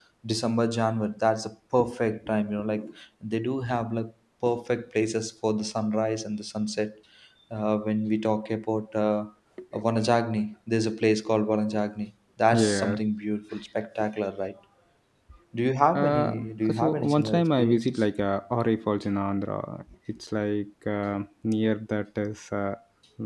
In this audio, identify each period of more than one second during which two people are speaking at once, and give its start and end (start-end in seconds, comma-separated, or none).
16.8-18.0